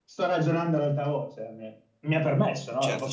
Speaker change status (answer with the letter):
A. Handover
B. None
A